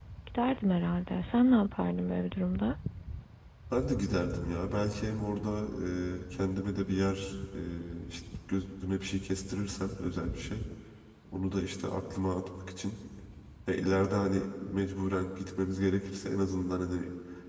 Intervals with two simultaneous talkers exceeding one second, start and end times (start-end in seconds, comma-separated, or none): none